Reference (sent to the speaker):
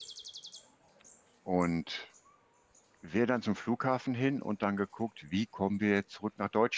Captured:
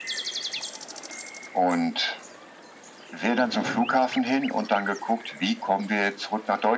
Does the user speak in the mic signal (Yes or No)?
Yes